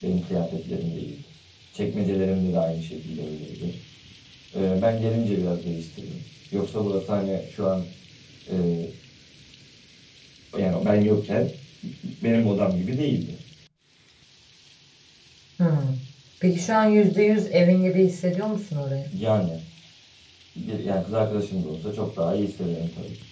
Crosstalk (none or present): none